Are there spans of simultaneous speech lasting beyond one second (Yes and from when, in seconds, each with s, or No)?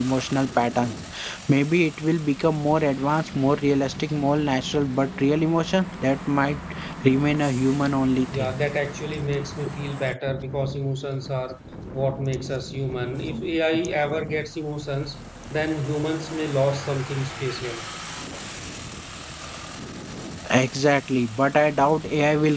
No